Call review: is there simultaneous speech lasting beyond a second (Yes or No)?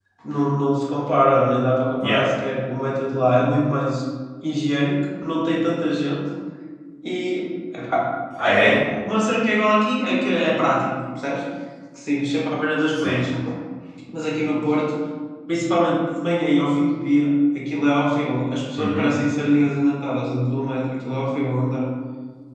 No